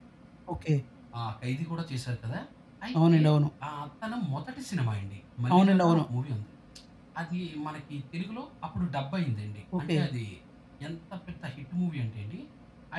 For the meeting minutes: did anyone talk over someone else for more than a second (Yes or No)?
No